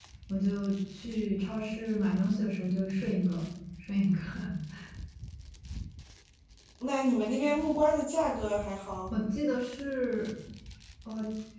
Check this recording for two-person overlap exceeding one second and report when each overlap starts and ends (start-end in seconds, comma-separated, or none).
none